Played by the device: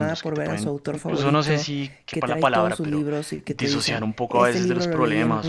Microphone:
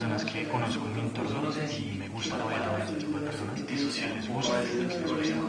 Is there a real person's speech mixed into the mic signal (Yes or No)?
Yes